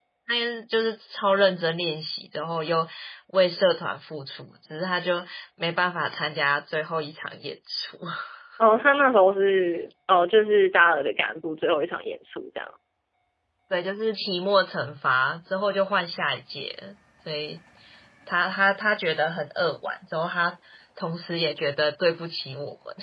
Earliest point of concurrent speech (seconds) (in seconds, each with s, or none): none